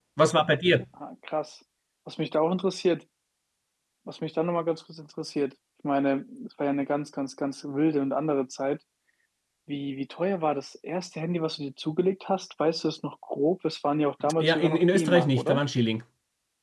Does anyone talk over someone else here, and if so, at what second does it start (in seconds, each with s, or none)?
14.2 s